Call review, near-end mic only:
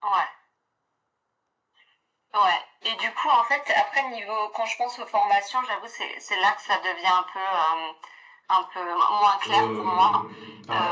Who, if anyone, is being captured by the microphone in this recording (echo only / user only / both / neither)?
both